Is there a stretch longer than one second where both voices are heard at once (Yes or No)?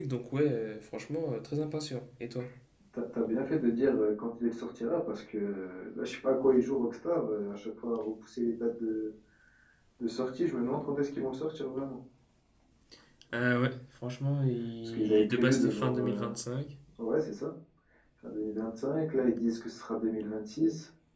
Yes